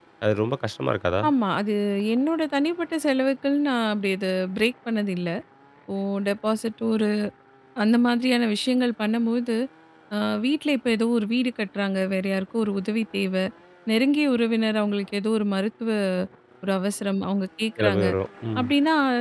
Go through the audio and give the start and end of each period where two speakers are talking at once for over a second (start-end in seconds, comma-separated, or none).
none